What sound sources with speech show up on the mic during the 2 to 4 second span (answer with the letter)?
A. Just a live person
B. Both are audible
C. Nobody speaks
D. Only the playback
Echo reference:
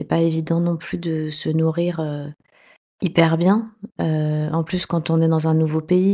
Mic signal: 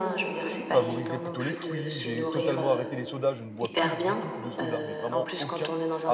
B